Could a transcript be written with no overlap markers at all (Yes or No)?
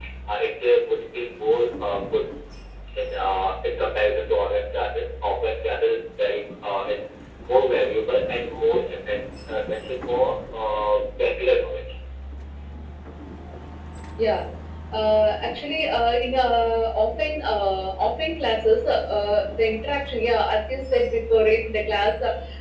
Yes